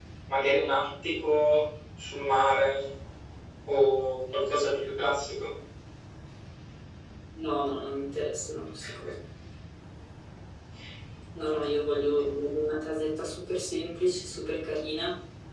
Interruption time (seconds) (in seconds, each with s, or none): none